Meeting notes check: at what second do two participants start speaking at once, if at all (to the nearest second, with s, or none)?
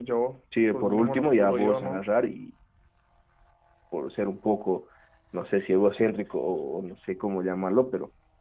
1 s